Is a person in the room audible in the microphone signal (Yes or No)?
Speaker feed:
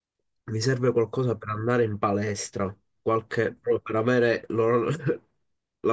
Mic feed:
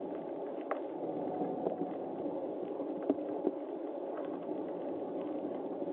No